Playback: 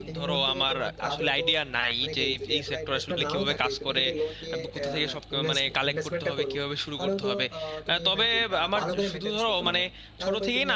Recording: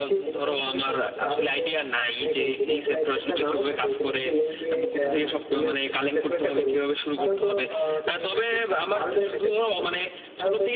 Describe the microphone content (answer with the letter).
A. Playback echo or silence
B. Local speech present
A